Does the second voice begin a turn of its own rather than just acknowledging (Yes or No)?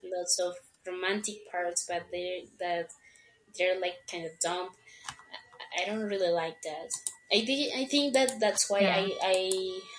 No